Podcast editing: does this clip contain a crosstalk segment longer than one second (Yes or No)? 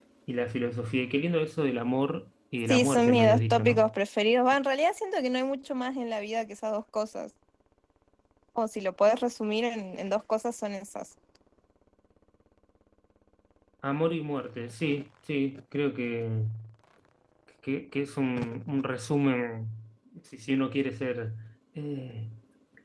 Yes